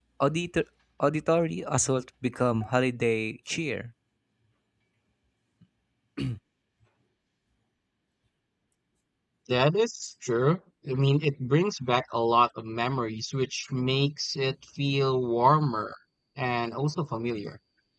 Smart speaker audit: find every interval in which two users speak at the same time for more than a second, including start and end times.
none

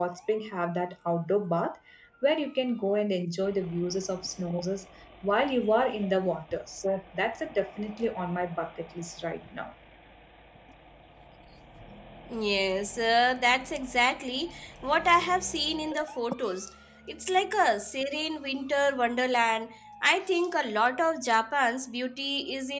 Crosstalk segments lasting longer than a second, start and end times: none

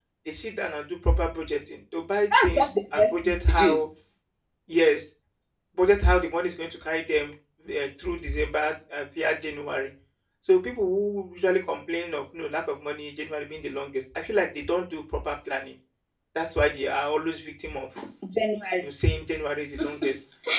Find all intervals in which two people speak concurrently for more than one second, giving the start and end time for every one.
2.4-3.8

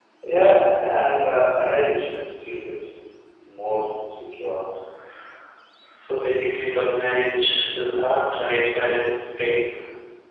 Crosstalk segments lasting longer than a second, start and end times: none

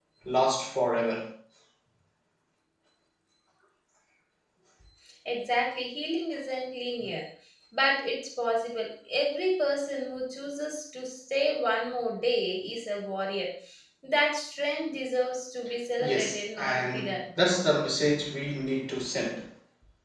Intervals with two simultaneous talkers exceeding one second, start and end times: 16.0-17.2

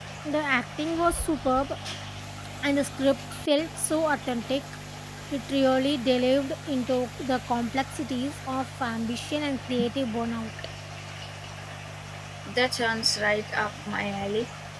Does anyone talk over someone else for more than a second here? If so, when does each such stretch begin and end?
none

